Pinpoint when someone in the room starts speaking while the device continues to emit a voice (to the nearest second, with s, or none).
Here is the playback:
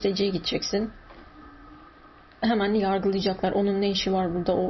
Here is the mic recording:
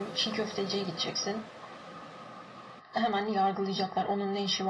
none